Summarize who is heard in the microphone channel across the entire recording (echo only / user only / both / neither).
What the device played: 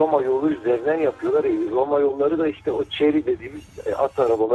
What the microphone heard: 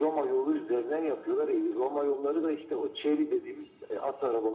echo only